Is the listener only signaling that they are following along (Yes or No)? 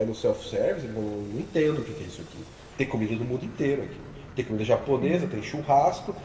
Yes